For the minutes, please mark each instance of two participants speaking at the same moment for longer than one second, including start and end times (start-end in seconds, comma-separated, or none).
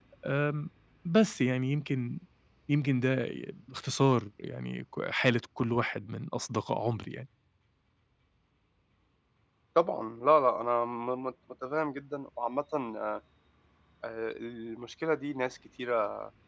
none